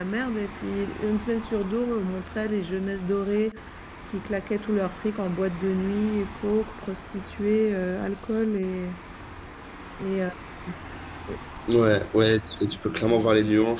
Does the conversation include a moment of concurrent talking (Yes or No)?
No